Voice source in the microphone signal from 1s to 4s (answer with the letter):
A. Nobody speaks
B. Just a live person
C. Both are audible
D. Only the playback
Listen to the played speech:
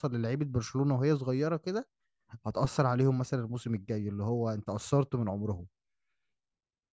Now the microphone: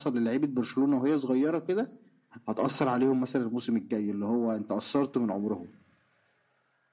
D